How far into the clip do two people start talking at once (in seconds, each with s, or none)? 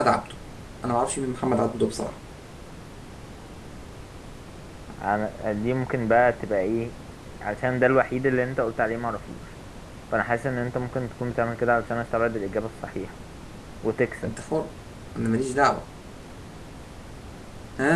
none